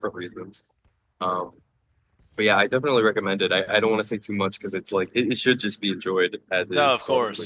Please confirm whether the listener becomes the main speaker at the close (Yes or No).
Yes